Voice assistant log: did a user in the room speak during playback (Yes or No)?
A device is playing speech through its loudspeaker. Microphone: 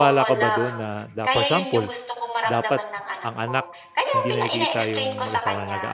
Yes